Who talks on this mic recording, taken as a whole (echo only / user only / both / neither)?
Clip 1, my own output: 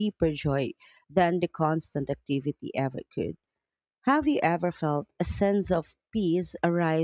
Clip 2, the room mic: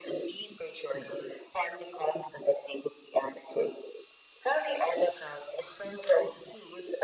echo only